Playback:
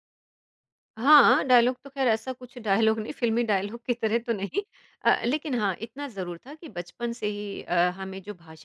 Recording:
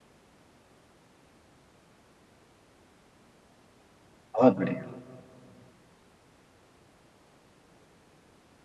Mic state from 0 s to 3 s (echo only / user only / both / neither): neither